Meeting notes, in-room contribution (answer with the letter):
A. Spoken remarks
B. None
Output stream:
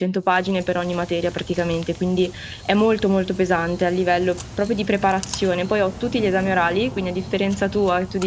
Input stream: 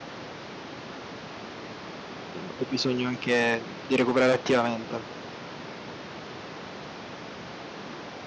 A